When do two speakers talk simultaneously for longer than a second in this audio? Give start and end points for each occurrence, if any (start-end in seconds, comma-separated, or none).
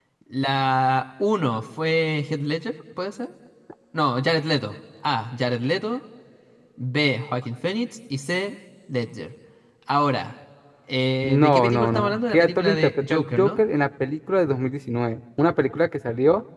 11.2-13.6